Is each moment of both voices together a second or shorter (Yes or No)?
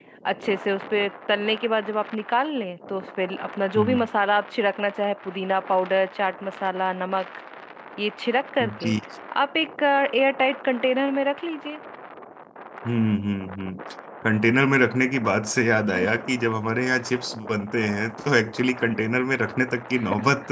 Yes